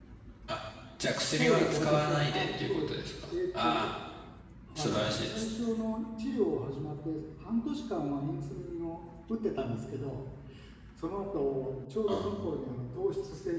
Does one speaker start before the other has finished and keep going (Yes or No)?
Yes